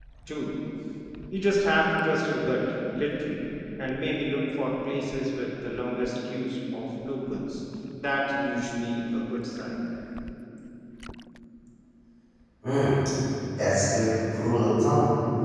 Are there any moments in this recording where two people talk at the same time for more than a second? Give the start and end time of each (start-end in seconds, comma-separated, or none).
none